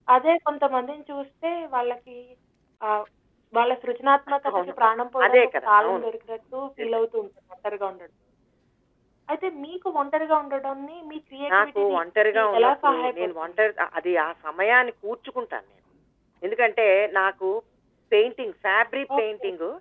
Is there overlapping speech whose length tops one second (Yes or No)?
Yes